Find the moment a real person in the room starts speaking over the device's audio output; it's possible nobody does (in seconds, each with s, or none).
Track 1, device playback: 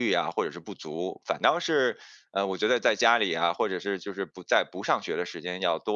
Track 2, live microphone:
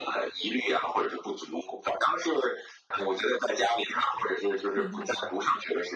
4.7 s